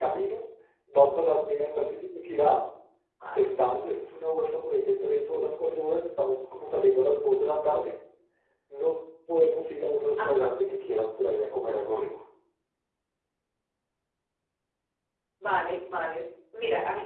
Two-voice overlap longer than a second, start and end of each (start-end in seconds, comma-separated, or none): none